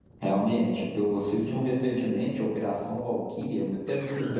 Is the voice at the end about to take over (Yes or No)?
No